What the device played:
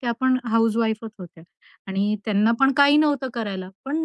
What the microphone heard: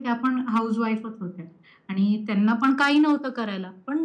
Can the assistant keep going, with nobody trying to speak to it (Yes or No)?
Yes